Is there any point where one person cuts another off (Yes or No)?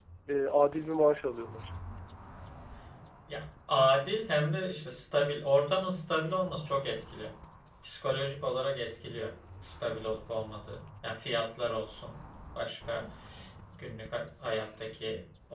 No